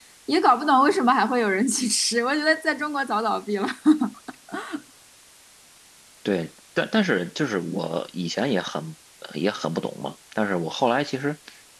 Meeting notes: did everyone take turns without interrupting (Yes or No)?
Yes